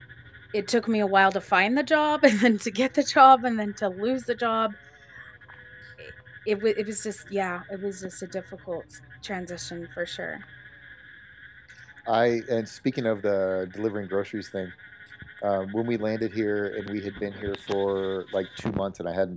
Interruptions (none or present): none